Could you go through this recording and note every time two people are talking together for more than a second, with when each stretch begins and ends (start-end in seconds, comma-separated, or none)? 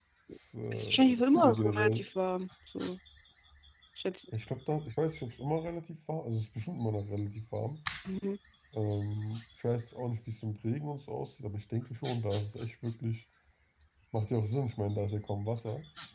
0.7-2.0